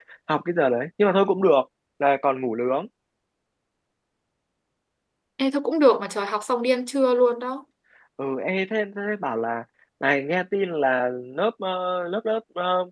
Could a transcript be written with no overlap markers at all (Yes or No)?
Yes